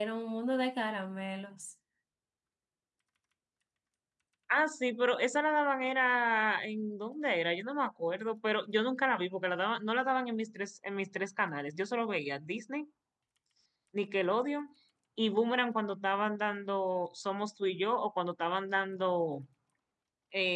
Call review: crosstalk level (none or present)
none